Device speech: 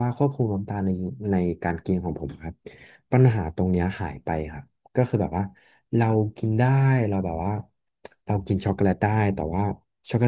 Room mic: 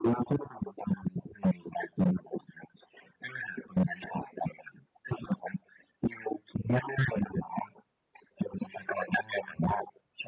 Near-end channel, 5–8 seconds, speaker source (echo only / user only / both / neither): echo only